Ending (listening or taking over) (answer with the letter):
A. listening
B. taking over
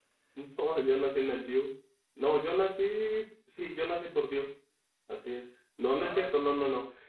A